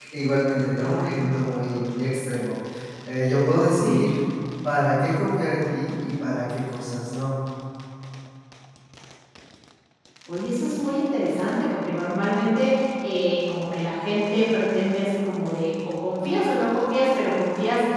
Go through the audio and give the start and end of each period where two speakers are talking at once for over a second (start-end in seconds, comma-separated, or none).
none